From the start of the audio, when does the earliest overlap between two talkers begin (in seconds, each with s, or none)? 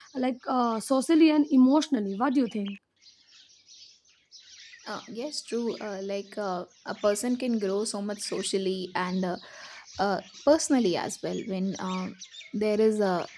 none